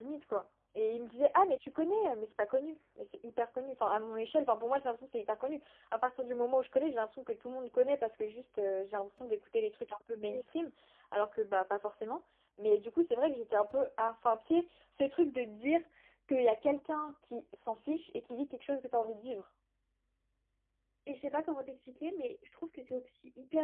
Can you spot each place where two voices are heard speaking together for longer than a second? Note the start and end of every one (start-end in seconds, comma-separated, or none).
none